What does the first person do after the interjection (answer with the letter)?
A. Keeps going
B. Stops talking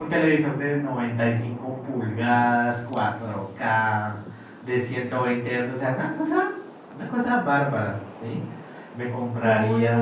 B